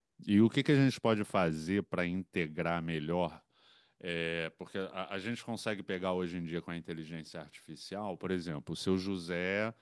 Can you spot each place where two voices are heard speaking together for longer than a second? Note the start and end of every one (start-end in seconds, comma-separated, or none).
none